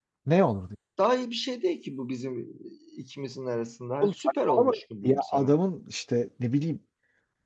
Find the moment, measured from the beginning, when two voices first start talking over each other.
4.0 s

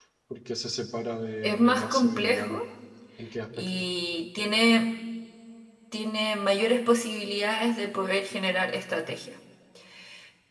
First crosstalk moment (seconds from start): 1.4 s

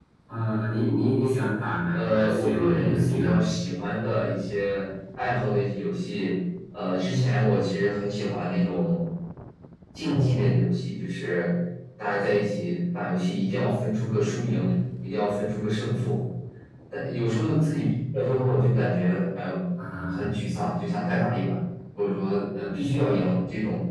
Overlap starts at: 1.9 s

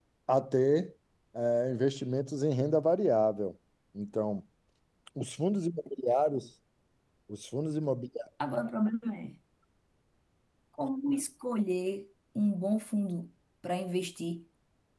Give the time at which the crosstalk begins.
none

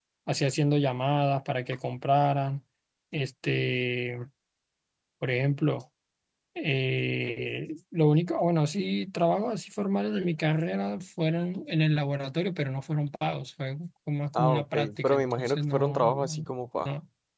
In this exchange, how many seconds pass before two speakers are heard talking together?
14.4 s

